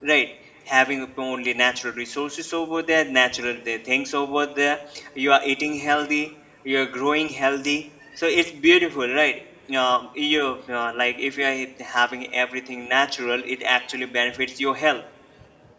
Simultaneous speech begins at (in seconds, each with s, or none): none